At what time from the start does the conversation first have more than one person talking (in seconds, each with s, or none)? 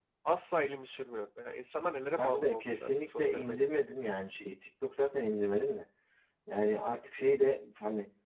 2.2 s